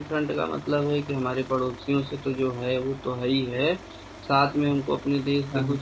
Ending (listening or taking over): listening